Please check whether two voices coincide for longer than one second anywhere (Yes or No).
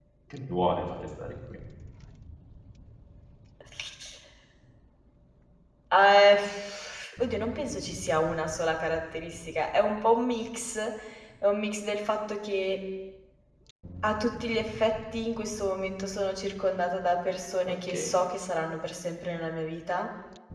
No